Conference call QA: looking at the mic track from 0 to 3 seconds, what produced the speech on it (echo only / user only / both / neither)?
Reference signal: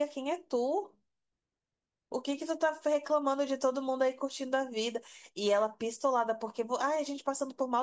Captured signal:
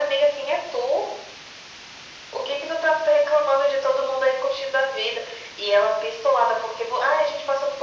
echo only